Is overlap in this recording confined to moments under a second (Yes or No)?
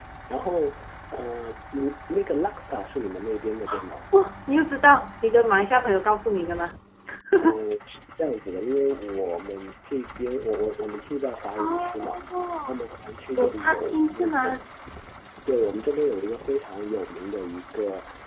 No